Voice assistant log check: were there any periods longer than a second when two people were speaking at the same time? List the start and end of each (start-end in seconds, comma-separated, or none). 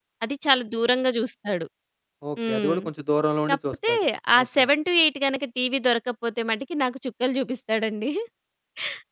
none